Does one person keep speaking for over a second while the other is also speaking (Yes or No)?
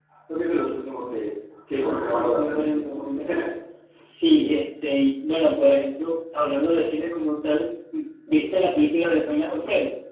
Yes